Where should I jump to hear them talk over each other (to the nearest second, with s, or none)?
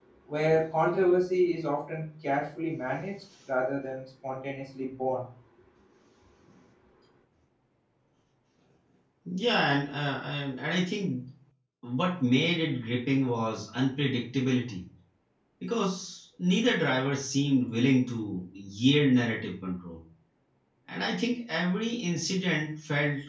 none